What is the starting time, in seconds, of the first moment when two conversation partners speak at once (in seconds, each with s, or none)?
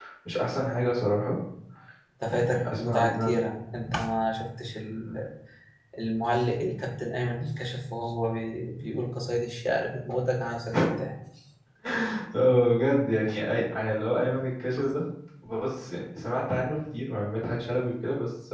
2.2 s